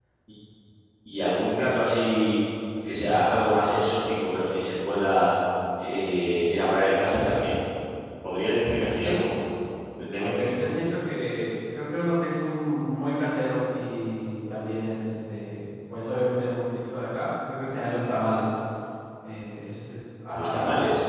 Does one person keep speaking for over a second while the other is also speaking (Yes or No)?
No